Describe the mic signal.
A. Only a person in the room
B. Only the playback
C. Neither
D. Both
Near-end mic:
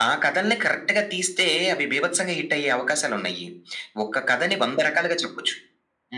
B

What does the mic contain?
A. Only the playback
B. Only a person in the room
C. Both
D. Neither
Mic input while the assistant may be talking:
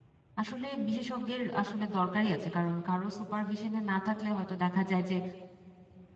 B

